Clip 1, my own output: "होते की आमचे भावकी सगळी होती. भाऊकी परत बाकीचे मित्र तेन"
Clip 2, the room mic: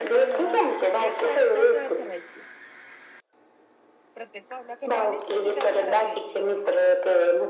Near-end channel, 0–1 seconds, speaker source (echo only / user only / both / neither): both